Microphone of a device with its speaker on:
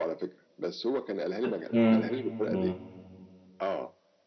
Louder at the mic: user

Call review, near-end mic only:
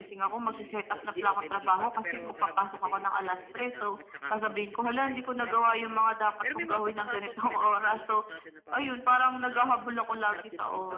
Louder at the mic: echo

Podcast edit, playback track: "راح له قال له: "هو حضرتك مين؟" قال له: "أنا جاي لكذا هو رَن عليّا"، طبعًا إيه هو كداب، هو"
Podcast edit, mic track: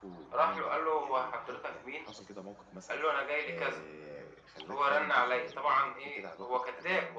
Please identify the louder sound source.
echo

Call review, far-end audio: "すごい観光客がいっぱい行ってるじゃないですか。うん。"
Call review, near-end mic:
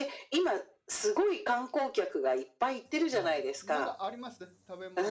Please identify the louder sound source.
echo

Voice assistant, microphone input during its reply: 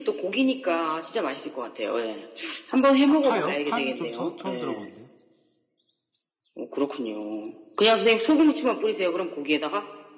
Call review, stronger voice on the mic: echo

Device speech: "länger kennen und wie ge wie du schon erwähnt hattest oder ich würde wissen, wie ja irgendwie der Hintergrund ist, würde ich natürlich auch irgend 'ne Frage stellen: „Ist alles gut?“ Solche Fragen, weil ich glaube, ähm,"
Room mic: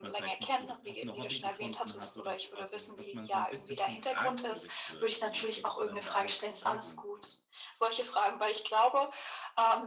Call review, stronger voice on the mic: echo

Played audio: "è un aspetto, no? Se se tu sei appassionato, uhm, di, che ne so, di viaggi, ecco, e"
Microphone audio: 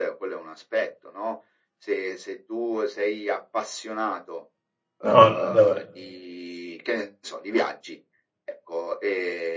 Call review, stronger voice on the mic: user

